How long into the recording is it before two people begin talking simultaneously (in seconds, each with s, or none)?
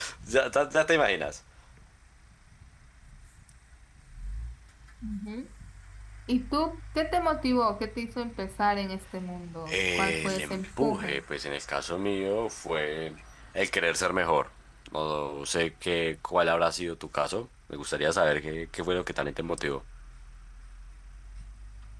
9.7 s